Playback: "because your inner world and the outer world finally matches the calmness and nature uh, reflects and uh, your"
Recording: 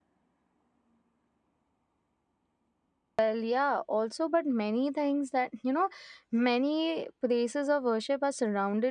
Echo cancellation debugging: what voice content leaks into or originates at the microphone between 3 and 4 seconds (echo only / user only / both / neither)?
user only